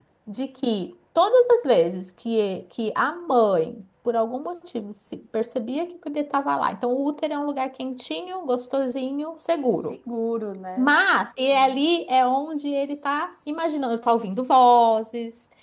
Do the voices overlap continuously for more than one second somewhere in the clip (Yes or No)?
No